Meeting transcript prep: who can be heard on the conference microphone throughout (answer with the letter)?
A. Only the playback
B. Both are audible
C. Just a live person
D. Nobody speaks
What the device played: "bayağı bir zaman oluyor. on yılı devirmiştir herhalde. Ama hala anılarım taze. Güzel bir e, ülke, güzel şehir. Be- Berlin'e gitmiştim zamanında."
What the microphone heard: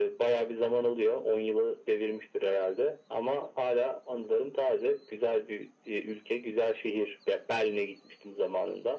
A